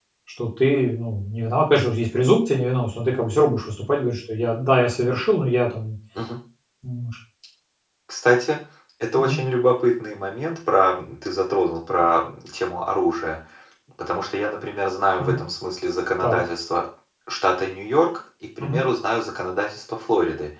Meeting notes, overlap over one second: none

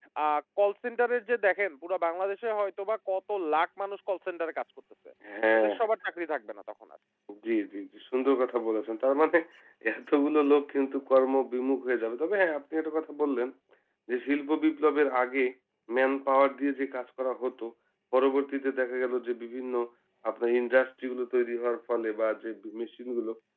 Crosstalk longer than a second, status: none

